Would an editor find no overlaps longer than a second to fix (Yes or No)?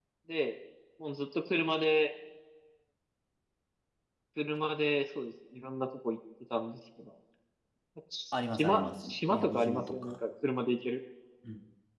No